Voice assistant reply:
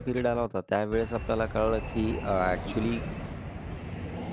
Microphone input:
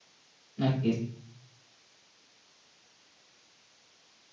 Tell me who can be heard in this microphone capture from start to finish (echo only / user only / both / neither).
user only